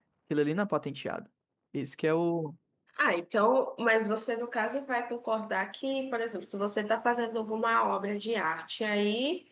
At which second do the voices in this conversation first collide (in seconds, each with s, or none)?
none